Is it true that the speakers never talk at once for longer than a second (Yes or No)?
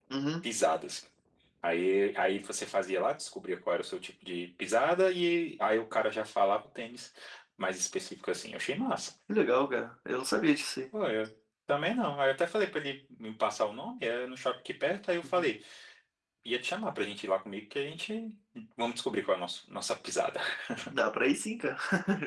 Yes